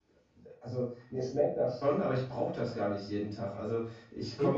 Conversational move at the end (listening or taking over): listening